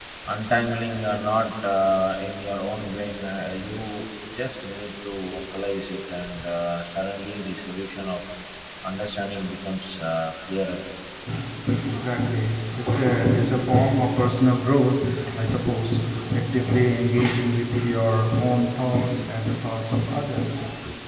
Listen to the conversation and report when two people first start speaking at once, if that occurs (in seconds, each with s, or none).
none